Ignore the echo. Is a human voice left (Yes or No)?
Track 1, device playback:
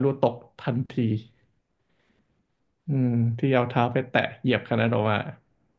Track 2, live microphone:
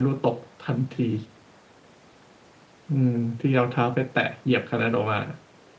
No